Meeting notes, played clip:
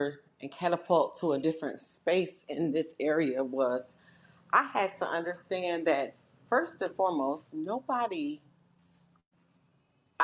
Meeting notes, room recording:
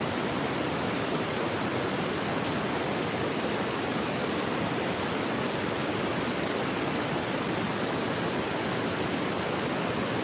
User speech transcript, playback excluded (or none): none